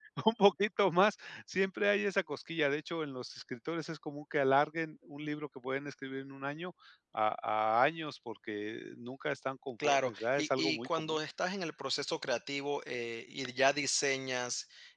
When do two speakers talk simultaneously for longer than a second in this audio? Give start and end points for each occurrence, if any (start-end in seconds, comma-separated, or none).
9.8-11.2